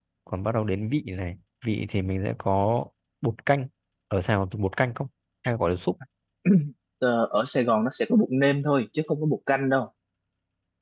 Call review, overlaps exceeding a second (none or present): none